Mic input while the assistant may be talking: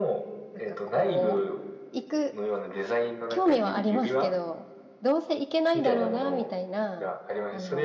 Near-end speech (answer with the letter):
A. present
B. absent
A